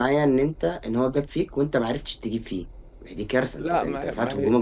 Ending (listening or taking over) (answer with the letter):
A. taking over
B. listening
A